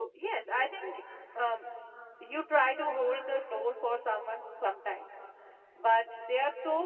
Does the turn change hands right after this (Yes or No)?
No